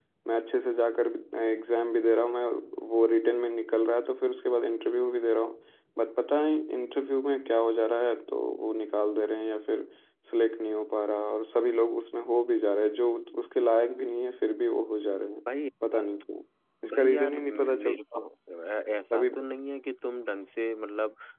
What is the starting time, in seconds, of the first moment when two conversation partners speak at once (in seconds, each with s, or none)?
16.9 s